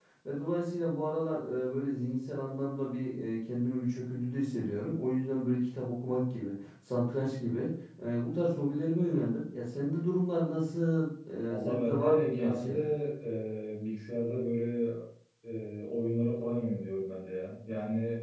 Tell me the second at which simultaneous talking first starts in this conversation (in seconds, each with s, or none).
11.5 s